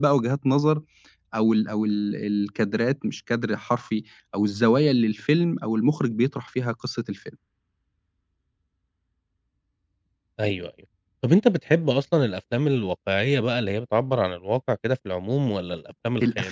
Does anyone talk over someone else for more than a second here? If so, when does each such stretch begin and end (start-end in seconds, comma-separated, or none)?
none